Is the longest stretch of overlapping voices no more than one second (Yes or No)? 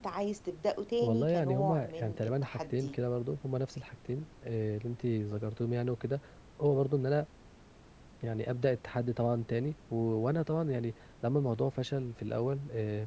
No